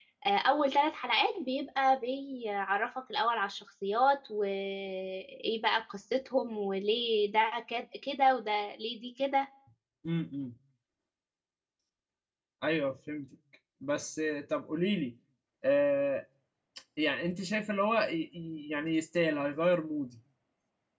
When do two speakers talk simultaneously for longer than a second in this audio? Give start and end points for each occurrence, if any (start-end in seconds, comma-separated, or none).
none